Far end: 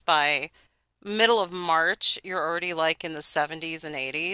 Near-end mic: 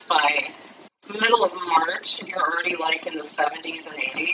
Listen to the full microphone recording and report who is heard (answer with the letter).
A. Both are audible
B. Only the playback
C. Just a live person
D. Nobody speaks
B